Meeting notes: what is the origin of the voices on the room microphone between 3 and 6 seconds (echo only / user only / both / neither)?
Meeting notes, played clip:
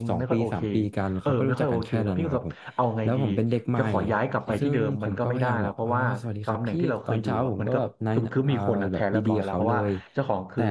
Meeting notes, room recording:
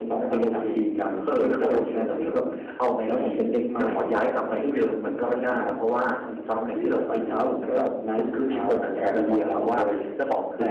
echo only